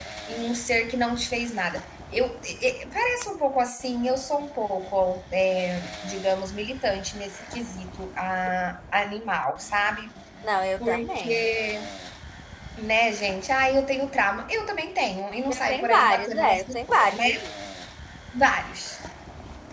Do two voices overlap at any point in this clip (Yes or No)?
Yes